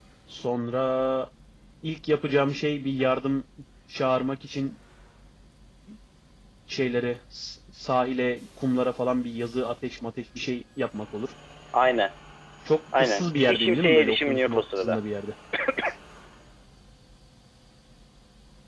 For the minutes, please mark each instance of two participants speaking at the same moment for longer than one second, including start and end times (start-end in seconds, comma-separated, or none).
13.0-15.0